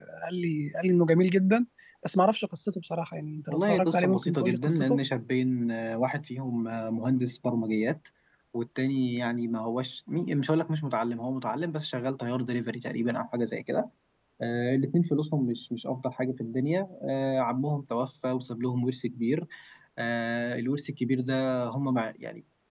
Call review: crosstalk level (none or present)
present